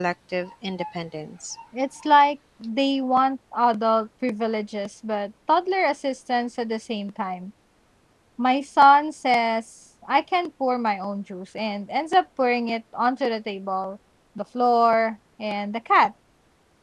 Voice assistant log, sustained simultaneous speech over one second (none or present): none